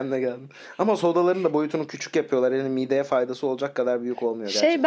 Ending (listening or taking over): taking over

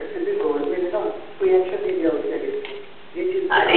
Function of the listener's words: taking over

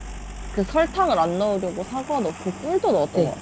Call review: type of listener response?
taking over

